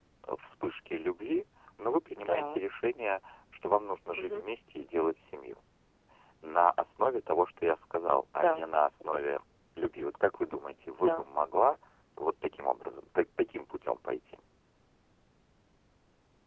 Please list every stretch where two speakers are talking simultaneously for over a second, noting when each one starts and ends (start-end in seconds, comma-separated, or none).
none